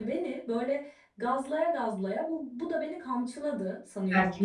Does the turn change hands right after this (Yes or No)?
Yes